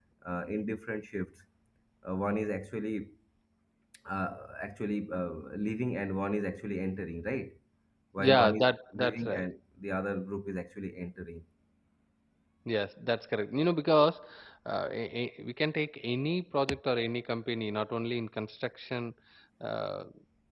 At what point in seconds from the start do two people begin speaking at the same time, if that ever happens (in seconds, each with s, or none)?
8.2 s